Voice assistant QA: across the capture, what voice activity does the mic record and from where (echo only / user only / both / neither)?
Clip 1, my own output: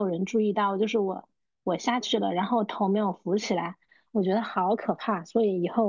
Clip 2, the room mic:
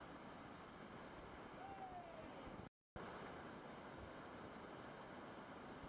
neither